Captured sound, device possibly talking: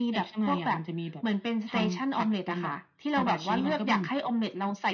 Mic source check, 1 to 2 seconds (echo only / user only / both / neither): echo only